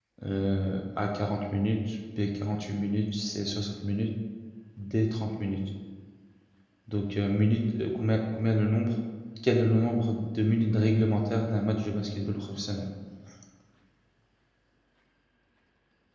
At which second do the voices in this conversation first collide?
none

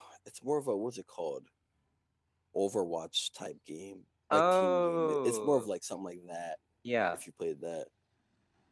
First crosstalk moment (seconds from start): 4 s

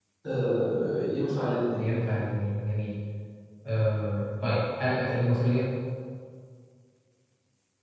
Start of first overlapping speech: none

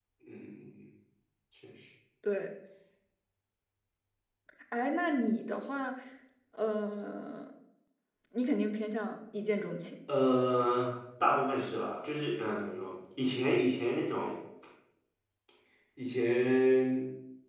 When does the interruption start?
none

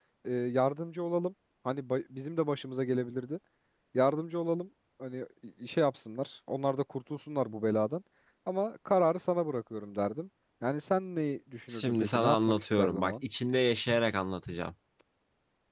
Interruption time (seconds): 12 s

